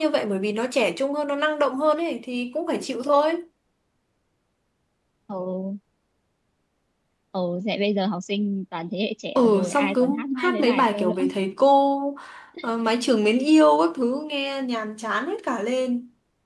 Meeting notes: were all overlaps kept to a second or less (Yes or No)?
No